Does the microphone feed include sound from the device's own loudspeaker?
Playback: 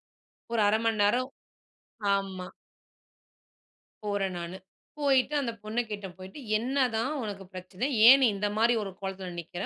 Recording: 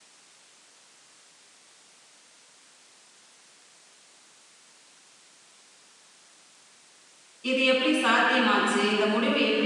No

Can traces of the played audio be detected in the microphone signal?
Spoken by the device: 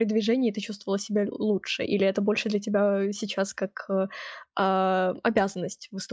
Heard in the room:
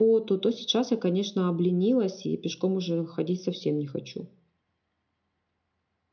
No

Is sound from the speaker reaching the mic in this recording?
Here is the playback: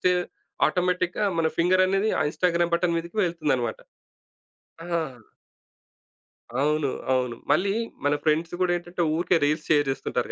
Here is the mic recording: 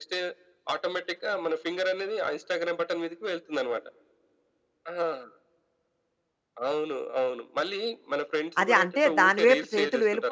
Yes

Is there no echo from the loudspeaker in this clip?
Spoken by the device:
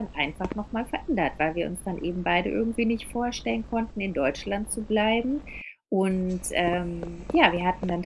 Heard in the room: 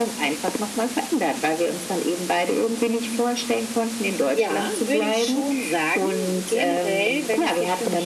No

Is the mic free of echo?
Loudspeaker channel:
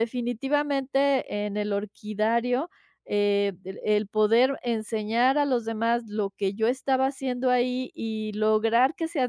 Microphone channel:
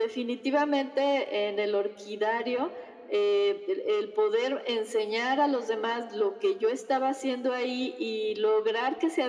No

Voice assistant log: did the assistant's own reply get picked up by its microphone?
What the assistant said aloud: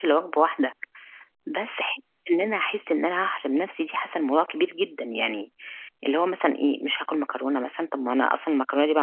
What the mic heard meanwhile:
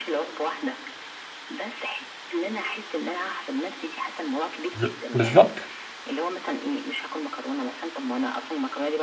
Yes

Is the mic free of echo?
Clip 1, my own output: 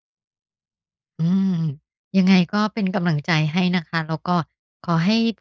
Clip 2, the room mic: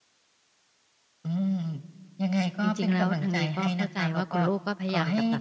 No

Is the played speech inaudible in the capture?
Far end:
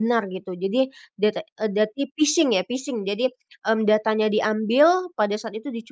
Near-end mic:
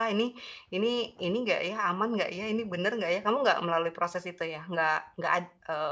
Yes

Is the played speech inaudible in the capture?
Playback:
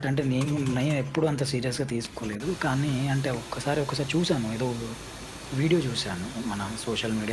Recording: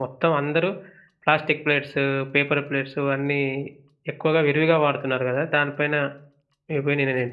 Yes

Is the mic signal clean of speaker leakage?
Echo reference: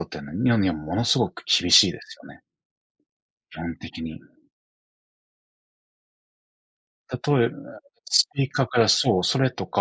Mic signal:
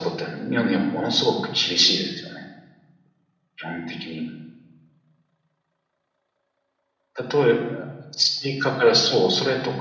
No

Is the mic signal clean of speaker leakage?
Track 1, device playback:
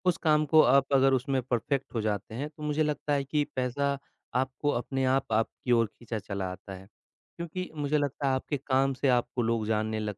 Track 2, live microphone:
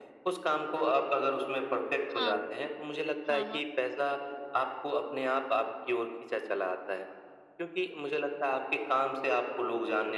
No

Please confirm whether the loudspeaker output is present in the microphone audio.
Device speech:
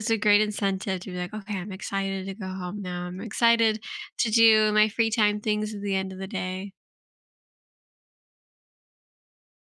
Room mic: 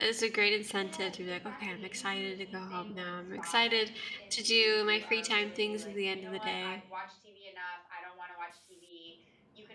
Yes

